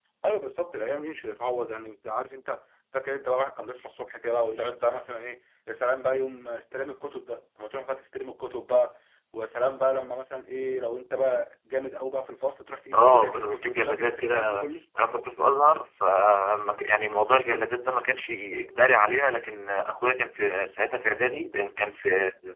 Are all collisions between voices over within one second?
No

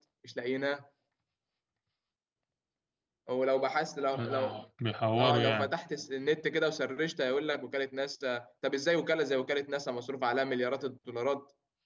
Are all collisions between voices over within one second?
Yes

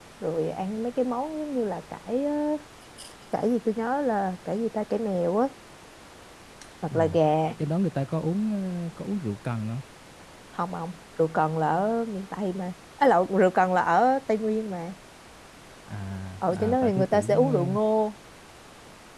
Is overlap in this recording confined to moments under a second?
No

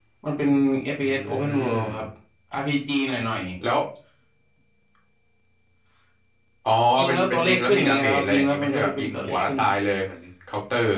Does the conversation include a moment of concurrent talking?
Yes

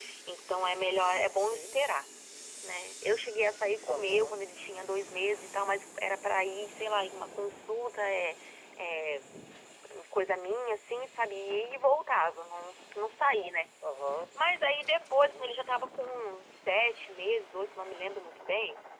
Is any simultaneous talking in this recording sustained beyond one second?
No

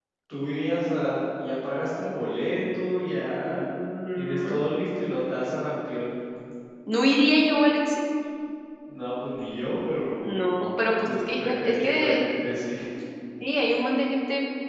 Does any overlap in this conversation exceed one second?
Yes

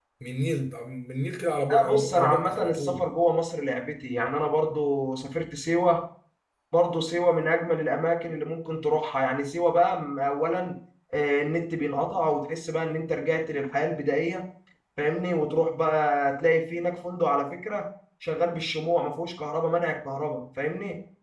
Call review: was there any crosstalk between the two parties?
Yes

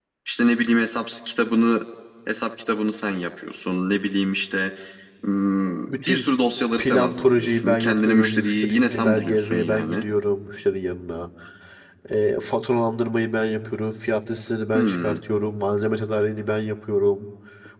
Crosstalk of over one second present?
Yes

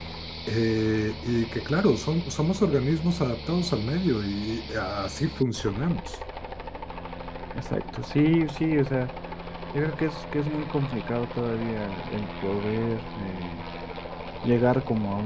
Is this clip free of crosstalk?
Yes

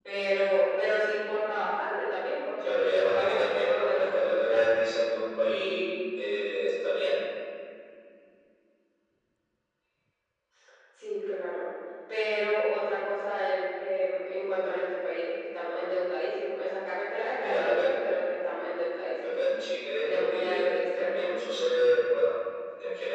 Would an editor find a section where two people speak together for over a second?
Yes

